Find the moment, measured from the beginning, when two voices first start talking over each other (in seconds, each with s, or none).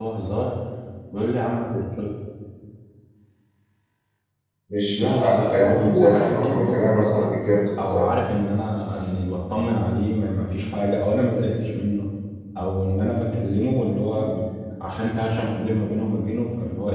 5.0 s